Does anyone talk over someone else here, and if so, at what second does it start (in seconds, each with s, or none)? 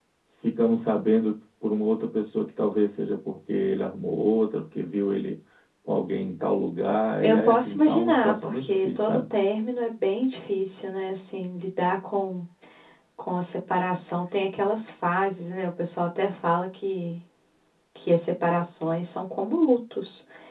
7.2 s